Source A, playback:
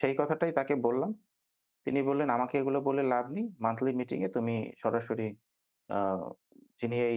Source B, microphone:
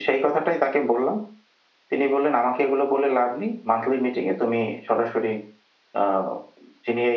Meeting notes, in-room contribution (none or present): none